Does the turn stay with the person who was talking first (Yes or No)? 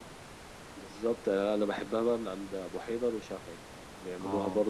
Yes